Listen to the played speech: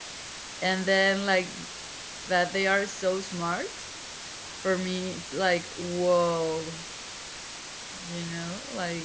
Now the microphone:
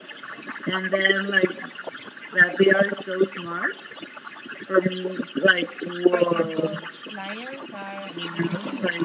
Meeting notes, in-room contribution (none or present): present